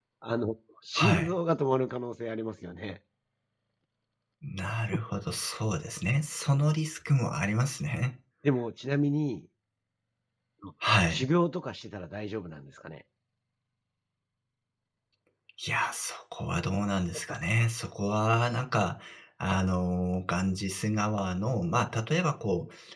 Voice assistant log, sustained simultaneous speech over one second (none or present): none